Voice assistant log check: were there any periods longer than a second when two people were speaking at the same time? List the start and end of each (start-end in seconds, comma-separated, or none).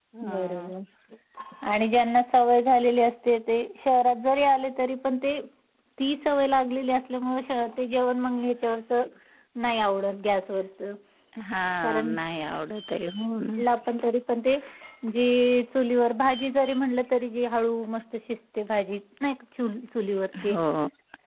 none